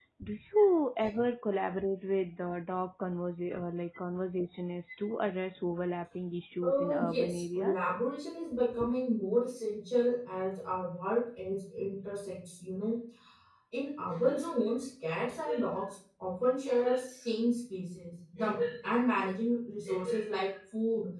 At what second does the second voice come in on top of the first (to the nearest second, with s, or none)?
7 s